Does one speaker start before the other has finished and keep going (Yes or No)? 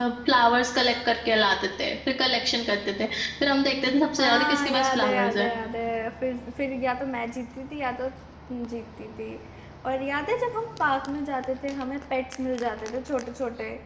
Yes